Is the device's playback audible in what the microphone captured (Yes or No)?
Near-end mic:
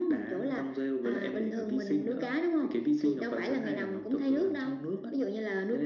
Yes